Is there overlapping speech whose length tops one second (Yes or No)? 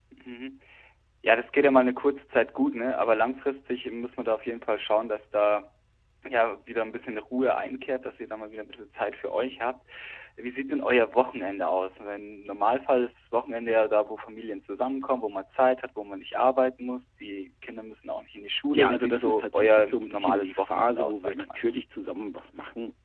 Yes